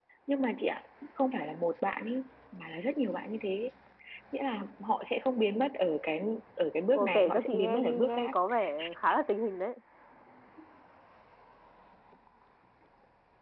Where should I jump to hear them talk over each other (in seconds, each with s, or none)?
6.9 s